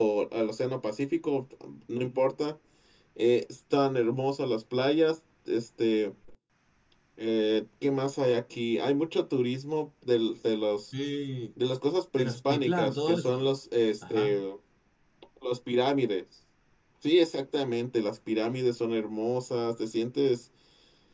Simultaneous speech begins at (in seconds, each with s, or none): 12.2 s